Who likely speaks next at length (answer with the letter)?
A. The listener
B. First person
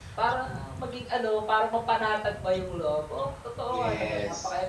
A